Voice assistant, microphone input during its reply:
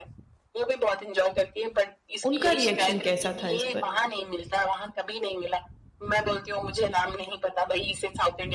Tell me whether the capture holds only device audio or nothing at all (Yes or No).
No